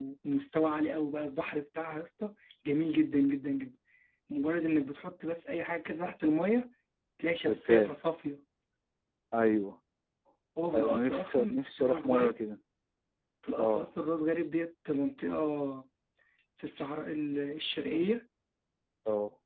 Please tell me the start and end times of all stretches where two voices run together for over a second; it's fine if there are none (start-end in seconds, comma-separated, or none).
10.7-12.3